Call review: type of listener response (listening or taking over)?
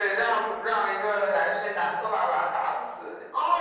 taking over